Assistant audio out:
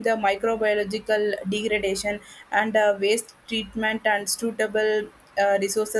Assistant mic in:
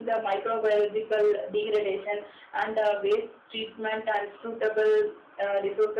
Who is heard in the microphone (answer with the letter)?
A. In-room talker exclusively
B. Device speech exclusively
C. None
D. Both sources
B